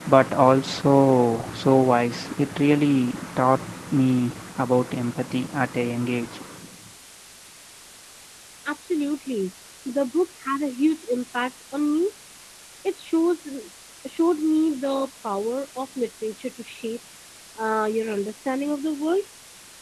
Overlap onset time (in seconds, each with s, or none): none